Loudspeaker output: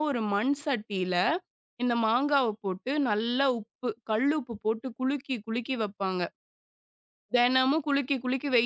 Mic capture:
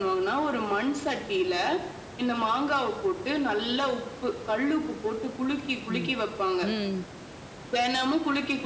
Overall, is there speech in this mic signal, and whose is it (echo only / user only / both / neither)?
both